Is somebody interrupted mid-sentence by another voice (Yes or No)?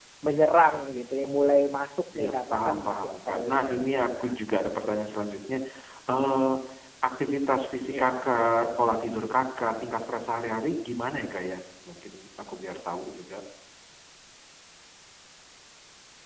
Yes